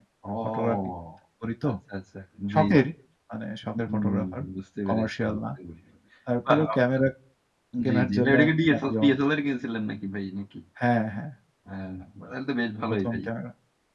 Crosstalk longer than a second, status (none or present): present